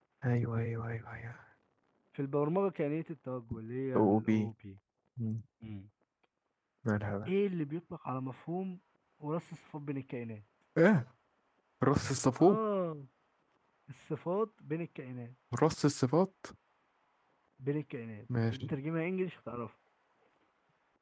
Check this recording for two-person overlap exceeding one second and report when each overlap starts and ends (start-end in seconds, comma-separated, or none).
none